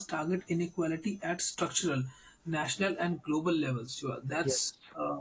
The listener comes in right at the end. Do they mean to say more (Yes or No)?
No